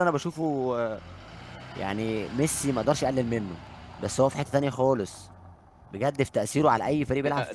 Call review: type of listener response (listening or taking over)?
taking over